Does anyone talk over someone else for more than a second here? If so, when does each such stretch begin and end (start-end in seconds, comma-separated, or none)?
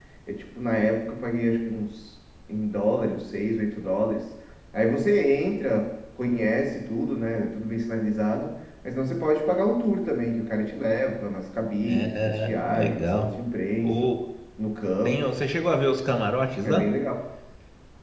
11.8-13.3